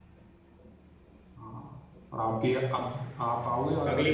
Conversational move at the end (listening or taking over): taking over